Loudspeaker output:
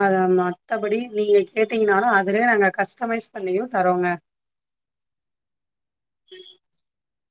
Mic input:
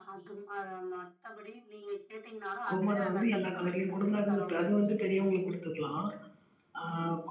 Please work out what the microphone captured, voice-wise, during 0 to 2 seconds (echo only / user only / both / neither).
echo only